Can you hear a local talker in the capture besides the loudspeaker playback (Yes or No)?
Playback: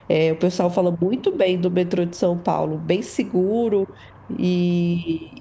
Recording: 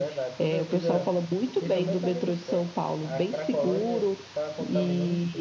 Yes